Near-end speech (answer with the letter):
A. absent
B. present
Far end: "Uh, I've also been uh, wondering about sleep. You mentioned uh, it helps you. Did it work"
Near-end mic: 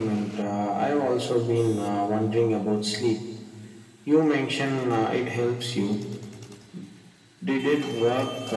A